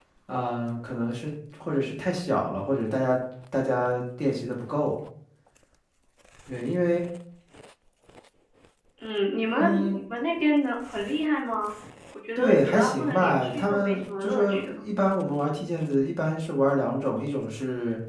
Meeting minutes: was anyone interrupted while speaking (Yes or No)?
Yes